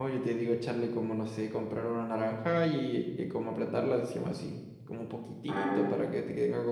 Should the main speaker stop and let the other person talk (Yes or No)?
No